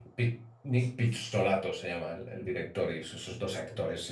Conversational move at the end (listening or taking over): listening